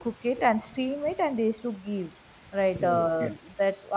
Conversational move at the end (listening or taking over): listening